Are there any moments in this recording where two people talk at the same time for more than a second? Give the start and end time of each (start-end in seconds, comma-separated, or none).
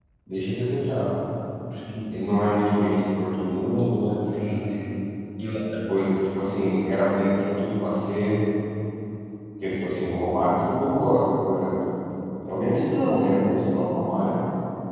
none